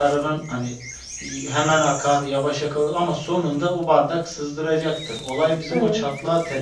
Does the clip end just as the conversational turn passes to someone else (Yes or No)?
No